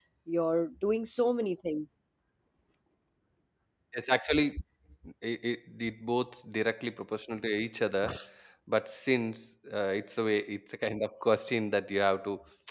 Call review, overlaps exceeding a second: none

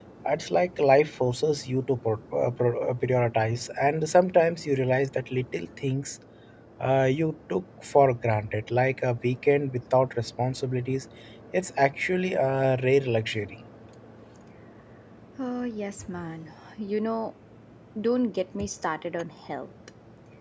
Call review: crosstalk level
none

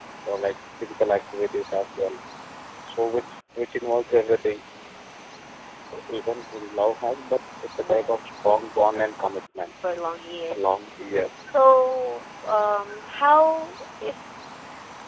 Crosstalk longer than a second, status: none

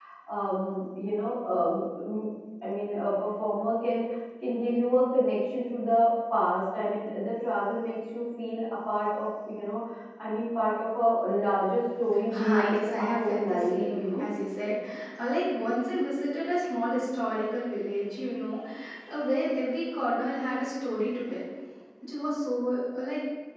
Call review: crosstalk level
present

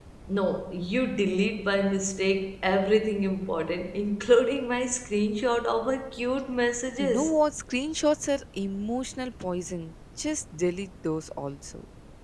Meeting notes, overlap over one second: none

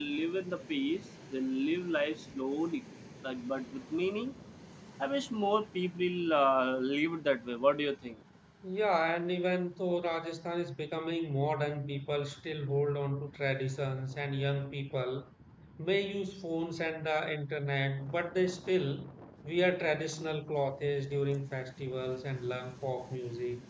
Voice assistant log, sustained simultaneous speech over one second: none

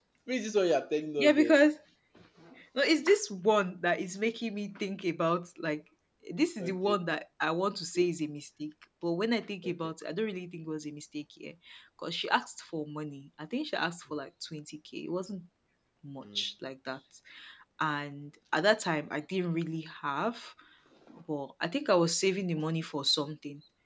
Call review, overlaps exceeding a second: none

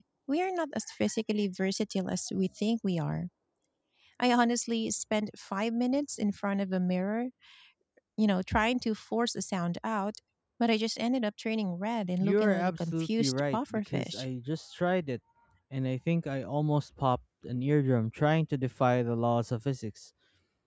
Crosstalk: present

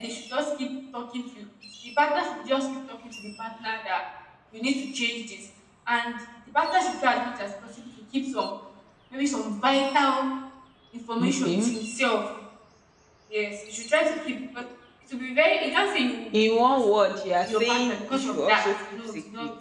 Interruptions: present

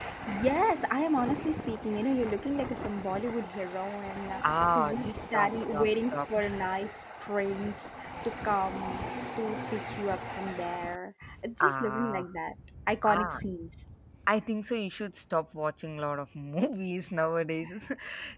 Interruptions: present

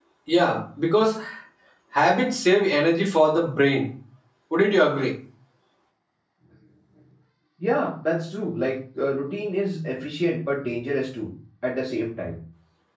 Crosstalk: none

